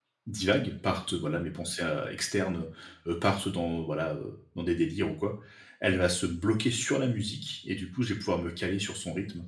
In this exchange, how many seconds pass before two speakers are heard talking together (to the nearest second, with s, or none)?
none